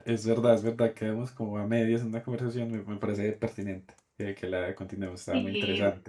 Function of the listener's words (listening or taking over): taking over